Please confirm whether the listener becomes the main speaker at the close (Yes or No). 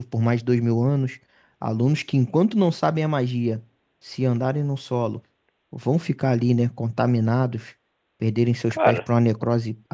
No